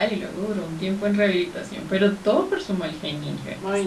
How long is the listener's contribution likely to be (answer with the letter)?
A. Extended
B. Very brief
A